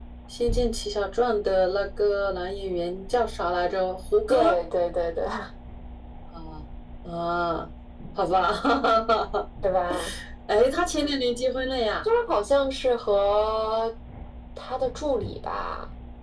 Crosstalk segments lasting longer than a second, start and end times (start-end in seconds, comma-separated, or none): none